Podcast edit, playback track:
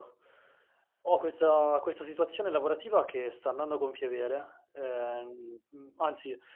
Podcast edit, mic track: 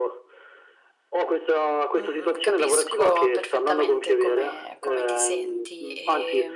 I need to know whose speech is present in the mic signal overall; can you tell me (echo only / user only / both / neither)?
both